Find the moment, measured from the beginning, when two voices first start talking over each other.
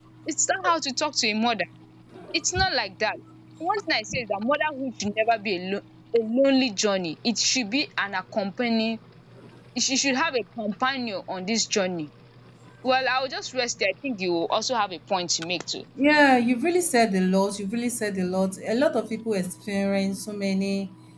none

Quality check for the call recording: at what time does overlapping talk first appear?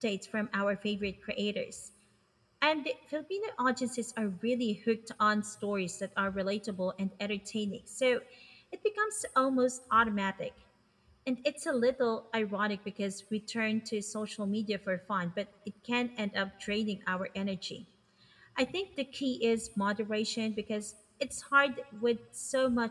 none

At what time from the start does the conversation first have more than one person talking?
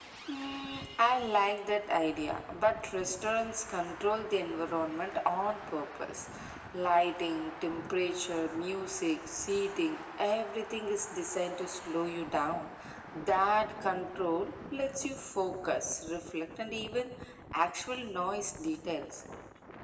none

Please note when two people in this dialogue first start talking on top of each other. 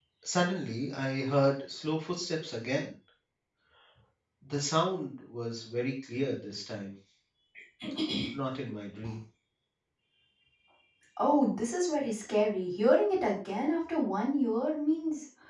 none

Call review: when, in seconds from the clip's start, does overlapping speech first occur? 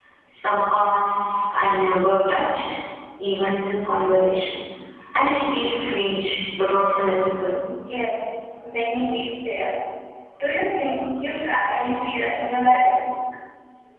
none

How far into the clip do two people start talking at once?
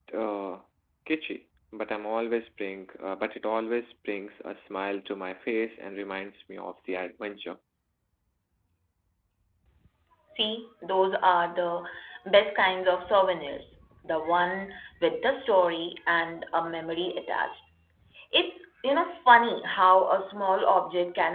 none

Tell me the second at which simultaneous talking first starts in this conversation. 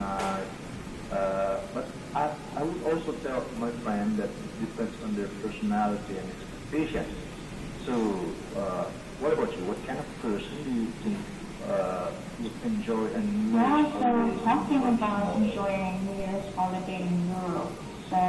13.5 s

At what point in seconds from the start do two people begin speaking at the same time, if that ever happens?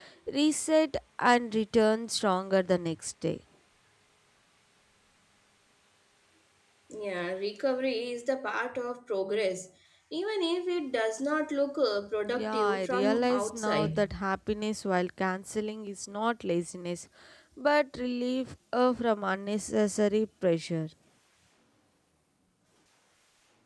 12.3 s

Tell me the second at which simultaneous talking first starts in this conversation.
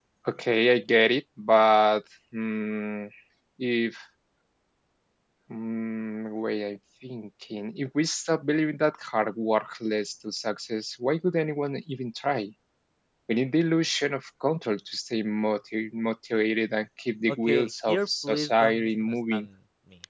17.3 s

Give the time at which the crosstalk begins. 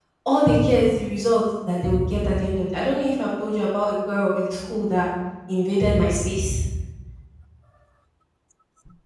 none

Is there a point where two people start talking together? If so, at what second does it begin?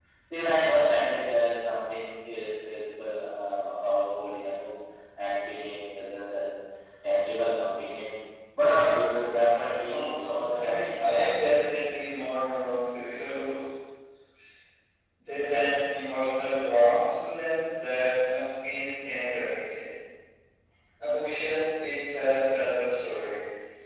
9.8 s

